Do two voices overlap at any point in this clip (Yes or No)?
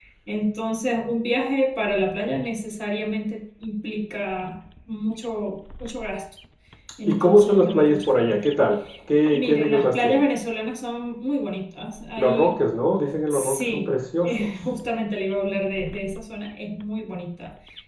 Yes